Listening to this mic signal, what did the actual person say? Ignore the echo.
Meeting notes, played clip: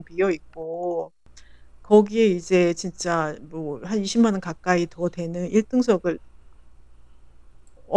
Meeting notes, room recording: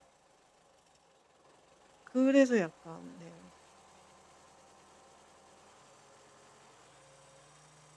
그래서 약간 네.

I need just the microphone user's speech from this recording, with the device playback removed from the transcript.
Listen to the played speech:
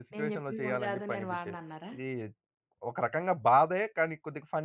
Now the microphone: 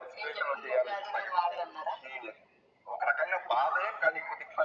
none

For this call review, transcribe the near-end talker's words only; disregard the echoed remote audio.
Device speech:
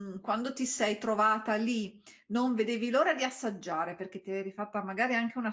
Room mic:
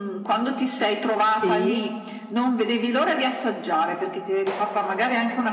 Sì,

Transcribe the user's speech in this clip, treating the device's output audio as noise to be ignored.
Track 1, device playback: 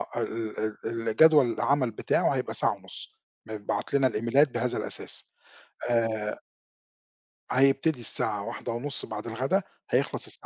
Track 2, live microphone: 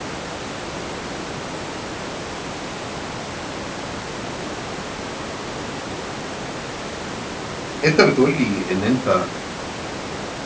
أنت بتقول لي إن أنت

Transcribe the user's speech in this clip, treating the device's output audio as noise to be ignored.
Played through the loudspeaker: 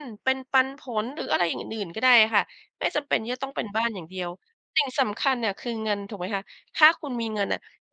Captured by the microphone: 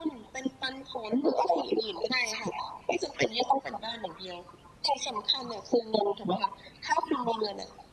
none

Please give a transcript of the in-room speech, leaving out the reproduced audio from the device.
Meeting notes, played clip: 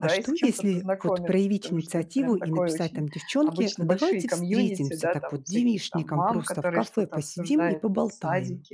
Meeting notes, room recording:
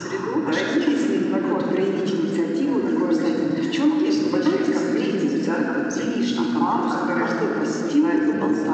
none

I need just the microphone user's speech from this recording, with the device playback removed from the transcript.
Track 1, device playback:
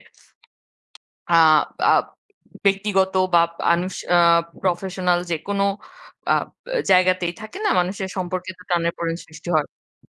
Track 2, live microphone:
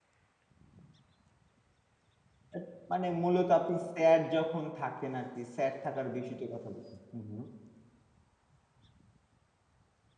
এত মানে মূলত আপনি স্যাড যখন থাকেন আরকি স্যাড থাকার বেশি তো কথা বলতে। হু, হু।

